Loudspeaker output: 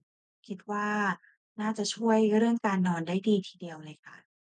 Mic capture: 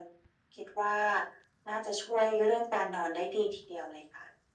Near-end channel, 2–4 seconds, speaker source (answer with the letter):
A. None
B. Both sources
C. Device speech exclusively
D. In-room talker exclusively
C